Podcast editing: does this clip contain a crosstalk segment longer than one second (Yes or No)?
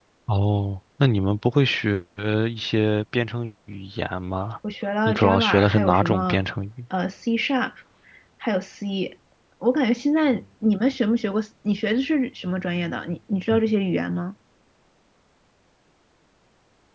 Yes